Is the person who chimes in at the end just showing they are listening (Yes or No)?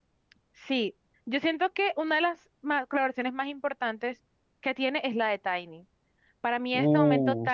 Yes